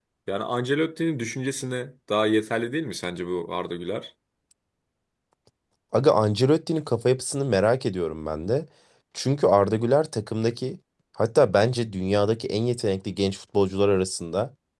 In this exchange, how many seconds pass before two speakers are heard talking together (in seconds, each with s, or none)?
none